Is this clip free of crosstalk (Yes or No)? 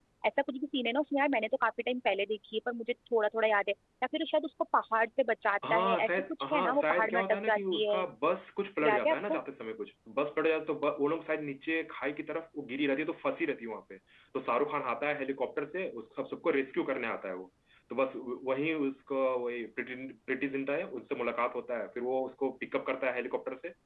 No